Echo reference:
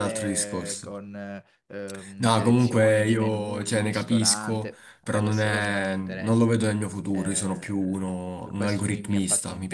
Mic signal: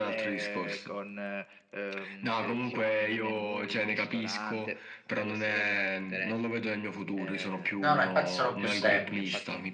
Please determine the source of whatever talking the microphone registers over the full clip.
both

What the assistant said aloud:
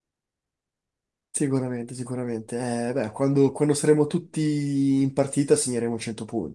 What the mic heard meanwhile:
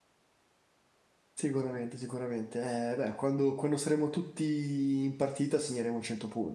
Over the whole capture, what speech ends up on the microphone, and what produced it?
echo only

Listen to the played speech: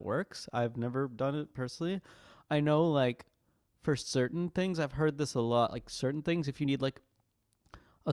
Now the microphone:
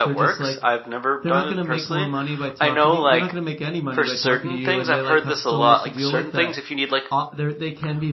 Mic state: both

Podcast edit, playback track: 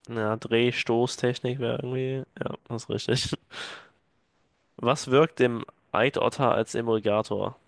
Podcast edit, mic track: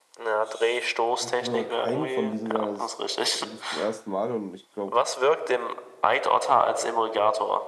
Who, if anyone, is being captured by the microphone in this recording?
both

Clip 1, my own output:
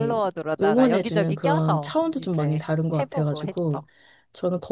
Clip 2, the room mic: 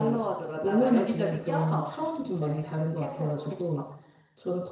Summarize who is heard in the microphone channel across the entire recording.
echo only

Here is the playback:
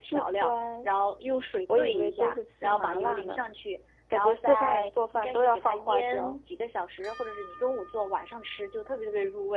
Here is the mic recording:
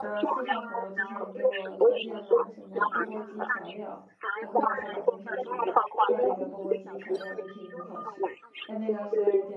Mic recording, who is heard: both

